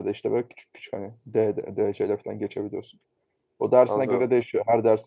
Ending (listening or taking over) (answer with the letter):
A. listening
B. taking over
A